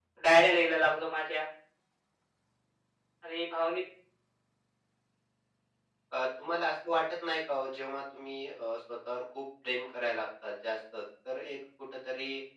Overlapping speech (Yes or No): No